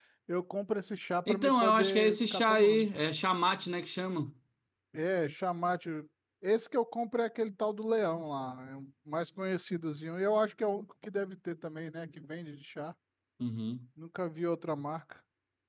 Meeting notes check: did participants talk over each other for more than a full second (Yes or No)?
Yes